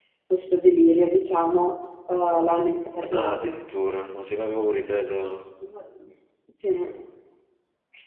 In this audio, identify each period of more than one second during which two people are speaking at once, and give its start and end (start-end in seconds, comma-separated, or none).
none